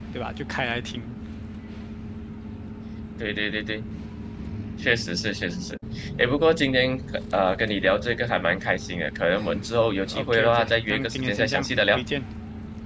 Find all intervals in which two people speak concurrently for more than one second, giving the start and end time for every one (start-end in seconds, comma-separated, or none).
10.1-12.0